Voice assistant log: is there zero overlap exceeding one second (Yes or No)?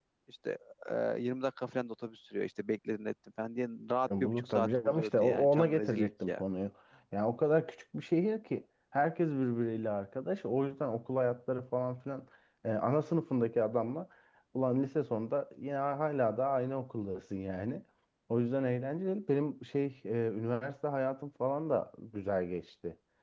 No